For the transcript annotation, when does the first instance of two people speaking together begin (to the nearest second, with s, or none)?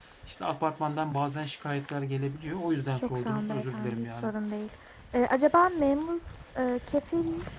3 s